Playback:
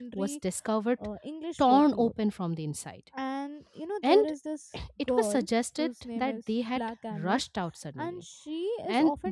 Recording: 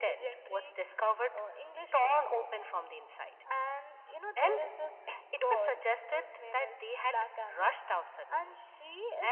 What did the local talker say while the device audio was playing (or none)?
none